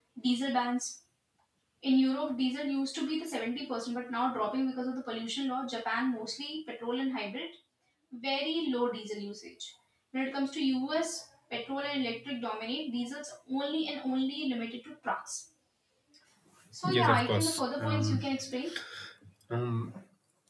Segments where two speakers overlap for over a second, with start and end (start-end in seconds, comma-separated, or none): 16.8-18.3